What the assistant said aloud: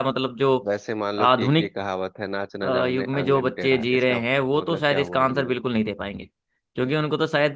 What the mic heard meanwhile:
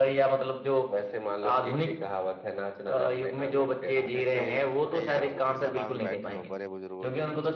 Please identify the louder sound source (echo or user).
echo